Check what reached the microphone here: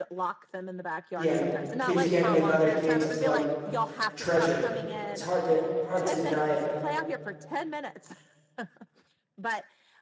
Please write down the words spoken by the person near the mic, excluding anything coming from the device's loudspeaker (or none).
yeah, kids get with other kids is like treasured. It's hard to hard to deny it.